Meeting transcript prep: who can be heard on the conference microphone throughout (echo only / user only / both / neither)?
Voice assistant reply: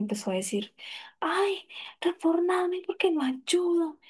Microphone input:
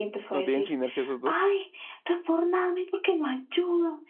both